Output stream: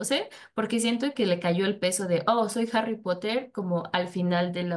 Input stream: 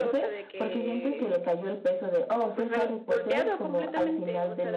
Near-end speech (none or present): present